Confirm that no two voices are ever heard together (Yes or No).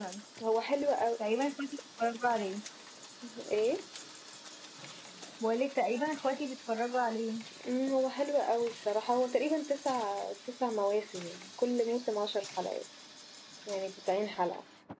Yes